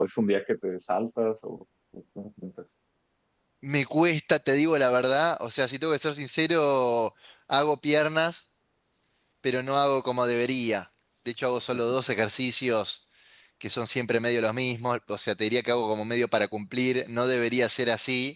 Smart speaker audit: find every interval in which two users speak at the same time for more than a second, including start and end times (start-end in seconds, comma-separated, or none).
none